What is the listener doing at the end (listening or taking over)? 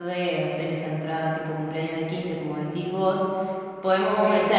listening